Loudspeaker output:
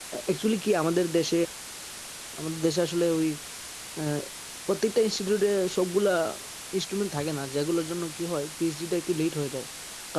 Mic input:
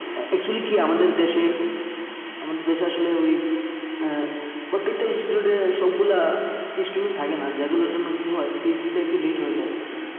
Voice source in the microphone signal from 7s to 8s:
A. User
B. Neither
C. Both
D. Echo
D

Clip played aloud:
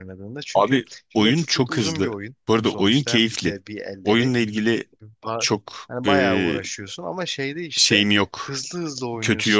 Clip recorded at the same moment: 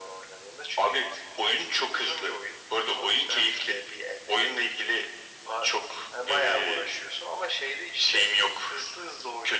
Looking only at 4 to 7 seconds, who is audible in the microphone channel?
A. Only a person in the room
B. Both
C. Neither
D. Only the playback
D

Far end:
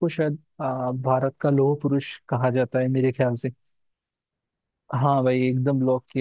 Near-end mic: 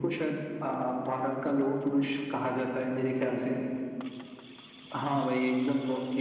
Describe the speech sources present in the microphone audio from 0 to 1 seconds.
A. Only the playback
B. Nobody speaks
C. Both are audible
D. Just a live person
A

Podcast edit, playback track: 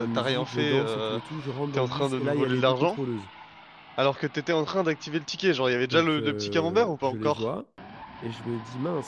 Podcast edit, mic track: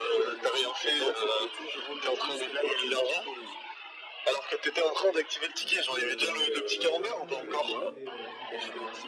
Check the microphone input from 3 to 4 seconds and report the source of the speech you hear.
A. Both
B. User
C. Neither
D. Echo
D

